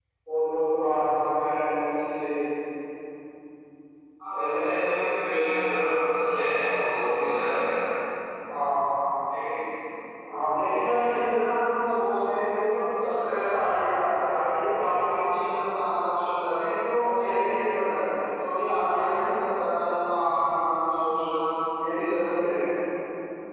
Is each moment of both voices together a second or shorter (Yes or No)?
Yes